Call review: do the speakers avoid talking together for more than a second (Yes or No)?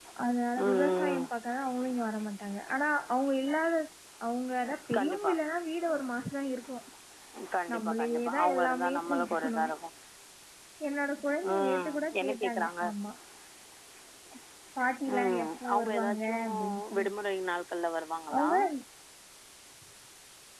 No